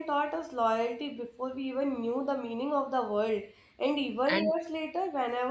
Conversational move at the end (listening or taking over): listening